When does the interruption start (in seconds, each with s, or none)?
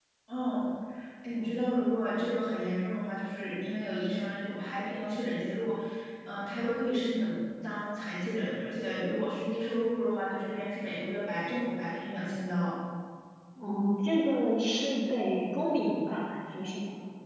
none